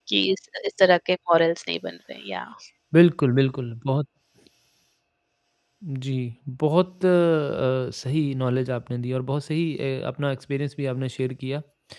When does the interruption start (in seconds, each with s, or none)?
none